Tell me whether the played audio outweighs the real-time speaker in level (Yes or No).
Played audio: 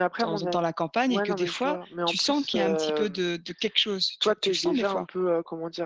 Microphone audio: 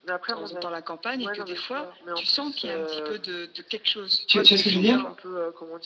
No